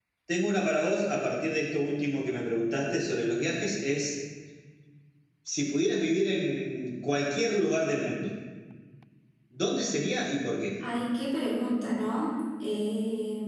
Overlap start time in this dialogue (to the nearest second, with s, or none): none